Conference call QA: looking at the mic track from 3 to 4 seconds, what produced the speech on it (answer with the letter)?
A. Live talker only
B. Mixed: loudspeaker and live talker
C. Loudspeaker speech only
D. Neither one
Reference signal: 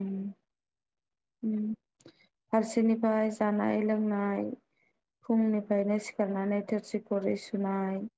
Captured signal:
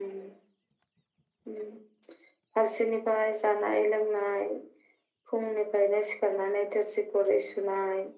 C